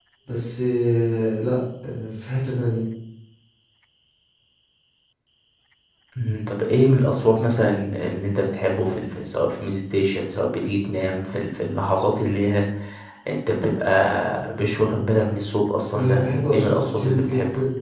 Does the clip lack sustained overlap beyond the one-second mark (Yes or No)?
No